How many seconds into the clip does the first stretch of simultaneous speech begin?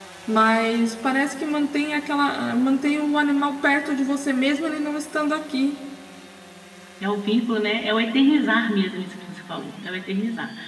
none

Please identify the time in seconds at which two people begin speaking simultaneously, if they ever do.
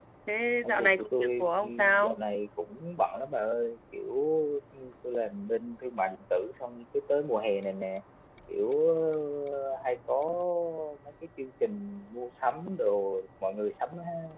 0.6 s

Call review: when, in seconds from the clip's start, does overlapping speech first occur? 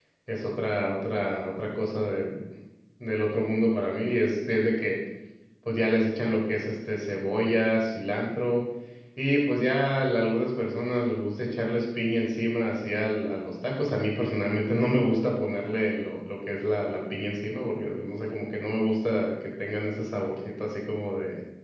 none

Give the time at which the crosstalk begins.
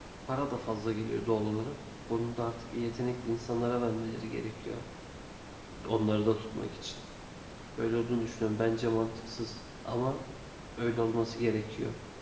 none

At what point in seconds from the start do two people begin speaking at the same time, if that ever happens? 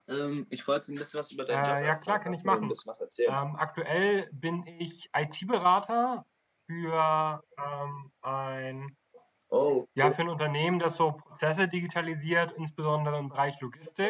1.5 s

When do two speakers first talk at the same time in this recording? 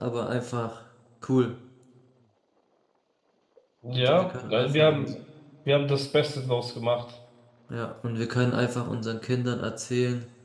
3.9 s

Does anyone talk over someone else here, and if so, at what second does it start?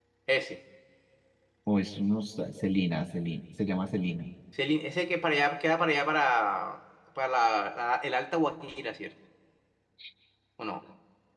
none

